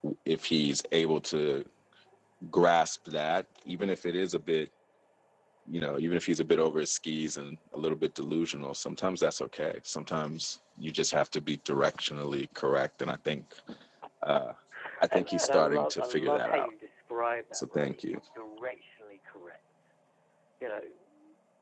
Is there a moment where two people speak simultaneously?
Yes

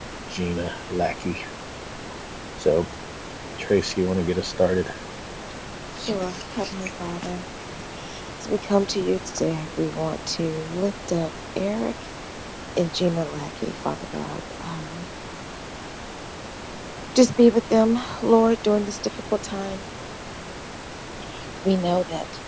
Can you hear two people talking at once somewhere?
No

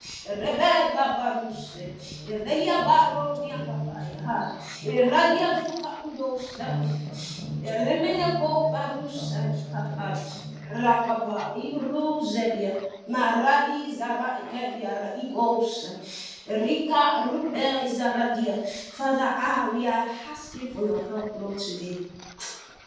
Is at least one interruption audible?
Yes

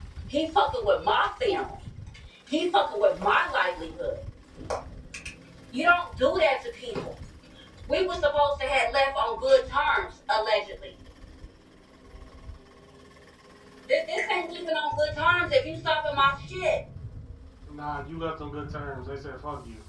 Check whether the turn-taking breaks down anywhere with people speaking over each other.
No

